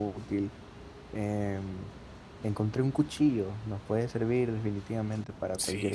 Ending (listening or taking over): taking over